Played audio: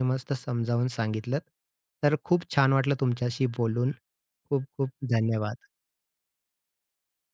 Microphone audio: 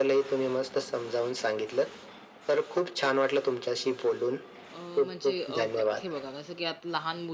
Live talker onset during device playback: 4.7 s

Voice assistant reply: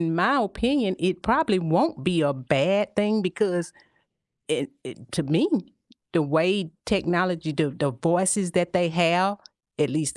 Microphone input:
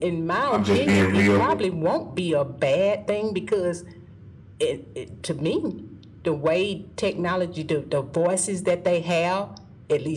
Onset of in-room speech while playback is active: 0.5 s

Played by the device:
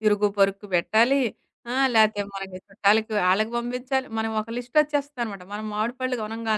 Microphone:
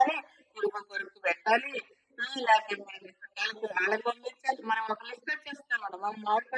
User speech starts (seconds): none

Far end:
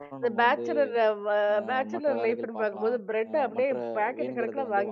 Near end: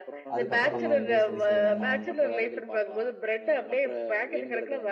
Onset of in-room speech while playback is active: 0.4 s

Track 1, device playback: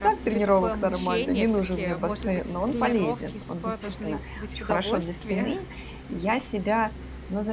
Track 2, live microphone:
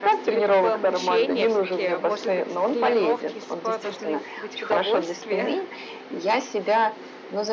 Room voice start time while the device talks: none

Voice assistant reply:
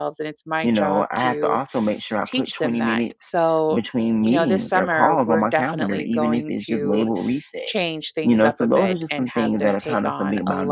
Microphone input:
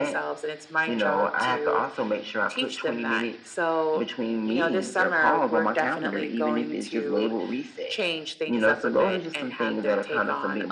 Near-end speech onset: none

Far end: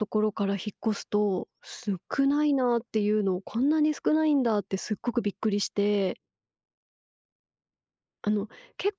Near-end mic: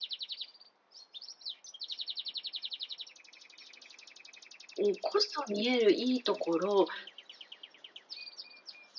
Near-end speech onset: 4.8 s

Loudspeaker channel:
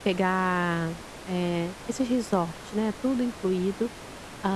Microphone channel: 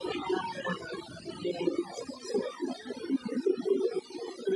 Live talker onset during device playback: none

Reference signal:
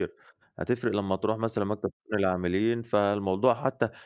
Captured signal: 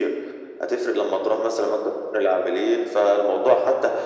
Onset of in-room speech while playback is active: none

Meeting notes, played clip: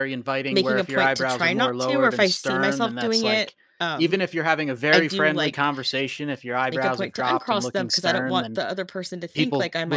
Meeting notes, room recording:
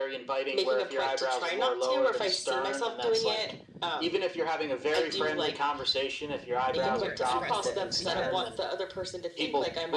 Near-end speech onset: 6.7 s

